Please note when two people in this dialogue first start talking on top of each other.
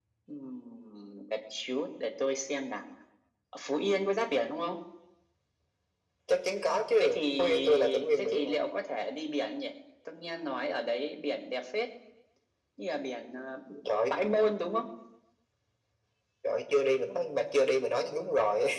7.0 s

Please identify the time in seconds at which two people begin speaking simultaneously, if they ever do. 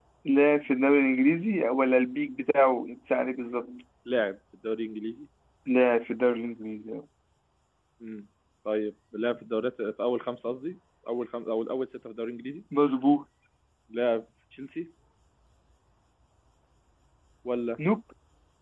none

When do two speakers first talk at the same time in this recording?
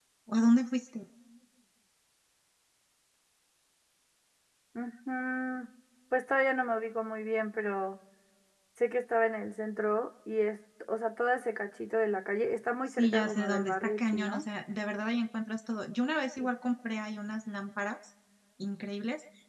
12.9 s

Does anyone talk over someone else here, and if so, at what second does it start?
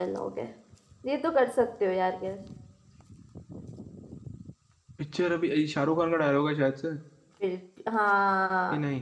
none

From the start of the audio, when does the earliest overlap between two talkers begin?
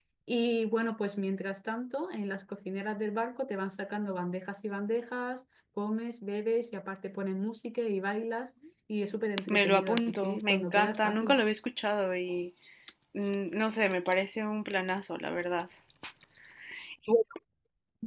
9.5 s

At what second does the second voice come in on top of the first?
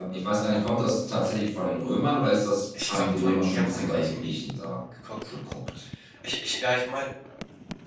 2.7 s

